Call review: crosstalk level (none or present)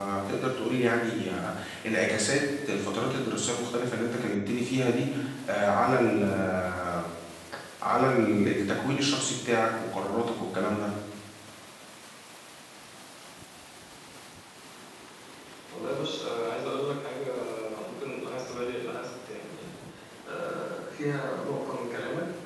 none